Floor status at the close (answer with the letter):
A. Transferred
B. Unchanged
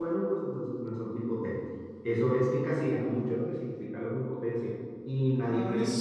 A